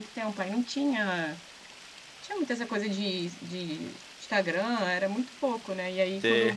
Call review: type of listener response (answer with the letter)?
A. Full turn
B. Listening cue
B